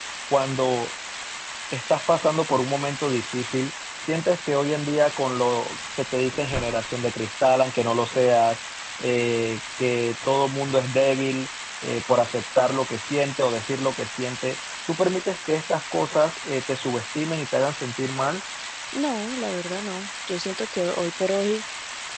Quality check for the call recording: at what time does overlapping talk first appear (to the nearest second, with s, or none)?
none